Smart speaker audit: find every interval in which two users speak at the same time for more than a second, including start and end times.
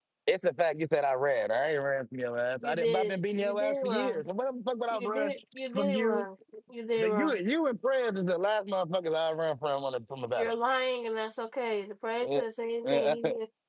2.6-4.2

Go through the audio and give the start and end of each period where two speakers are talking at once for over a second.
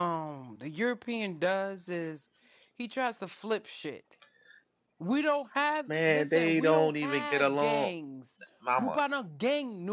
5.9-7.9

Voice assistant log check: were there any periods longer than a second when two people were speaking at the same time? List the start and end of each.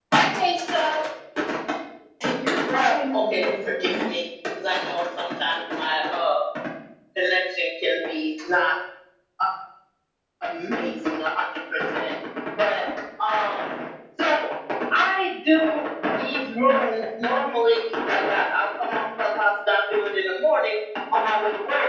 2.7-4.1

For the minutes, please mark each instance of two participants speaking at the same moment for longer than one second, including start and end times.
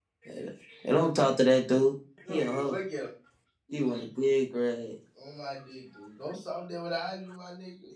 none

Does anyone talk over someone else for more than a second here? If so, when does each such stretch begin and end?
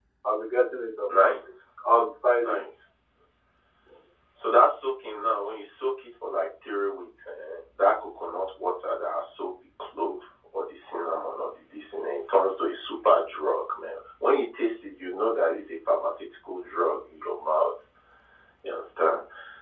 none

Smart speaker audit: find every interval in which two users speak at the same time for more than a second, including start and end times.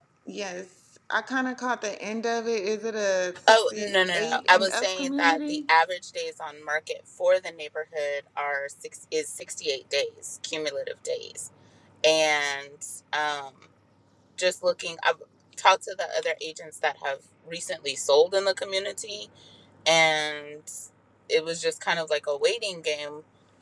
3.5-5.6

